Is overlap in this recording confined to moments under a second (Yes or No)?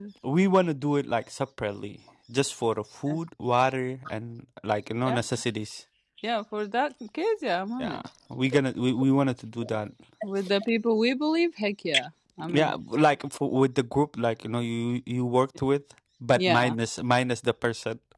Yes